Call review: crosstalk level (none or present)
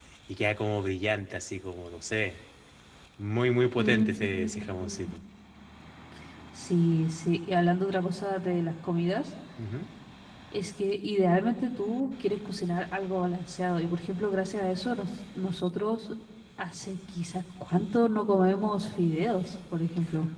present